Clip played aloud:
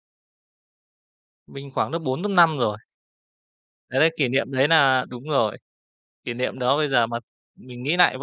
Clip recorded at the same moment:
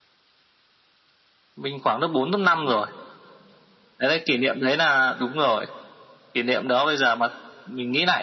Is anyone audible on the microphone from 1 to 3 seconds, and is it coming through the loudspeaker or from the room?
echo only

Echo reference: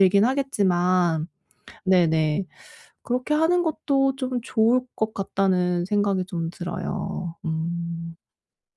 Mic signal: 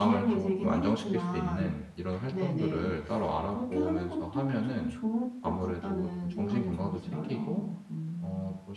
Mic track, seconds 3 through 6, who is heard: both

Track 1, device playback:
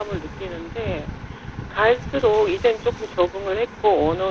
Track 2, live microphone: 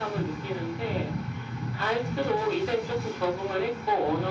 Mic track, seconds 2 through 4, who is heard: echo only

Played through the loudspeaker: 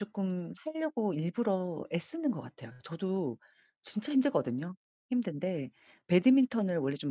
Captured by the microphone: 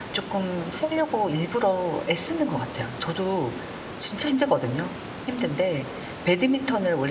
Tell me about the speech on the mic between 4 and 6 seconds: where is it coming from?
echo only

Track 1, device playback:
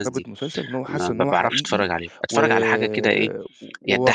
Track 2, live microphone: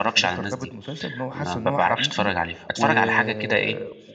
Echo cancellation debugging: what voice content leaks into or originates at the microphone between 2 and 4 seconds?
echo only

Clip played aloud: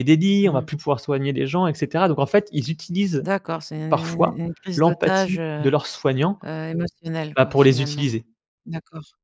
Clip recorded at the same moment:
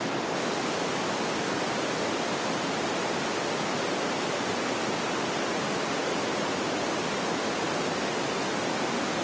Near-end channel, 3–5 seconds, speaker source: neither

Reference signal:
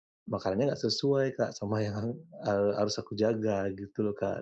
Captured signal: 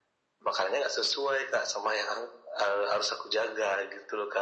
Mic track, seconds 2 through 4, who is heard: echo only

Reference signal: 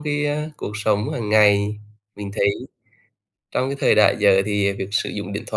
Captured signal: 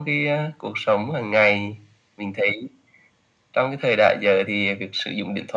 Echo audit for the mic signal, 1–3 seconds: echo only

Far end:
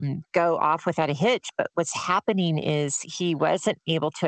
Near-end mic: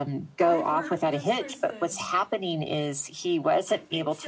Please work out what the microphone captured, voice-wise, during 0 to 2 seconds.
both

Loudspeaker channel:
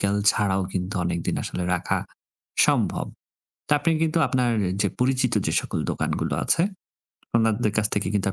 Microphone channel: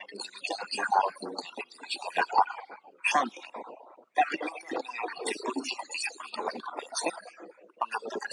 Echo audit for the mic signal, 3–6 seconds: echo only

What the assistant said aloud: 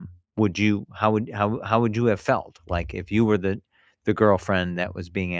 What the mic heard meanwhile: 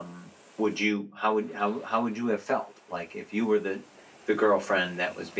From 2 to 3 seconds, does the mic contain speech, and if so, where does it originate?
echo only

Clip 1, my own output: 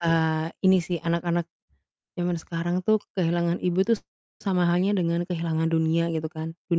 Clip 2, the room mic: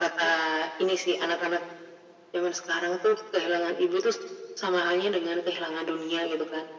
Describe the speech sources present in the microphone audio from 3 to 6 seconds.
echo only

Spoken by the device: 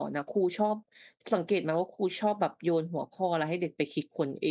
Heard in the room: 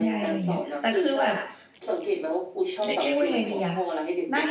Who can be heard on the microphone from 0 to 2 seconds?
both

